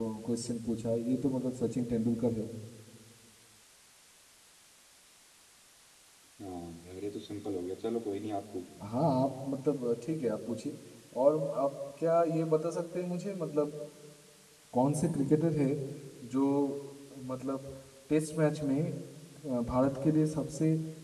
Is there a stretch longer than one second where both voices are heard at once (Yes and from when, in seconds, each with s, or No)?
No